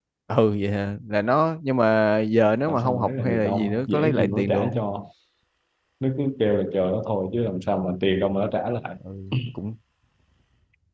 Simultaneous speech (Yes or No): Yes